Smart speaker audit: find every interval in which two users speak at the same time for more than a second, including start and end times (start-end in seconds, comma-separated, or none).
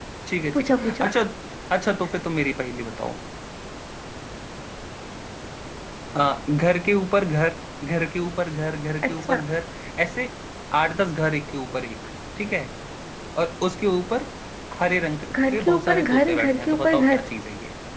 15.5-17.3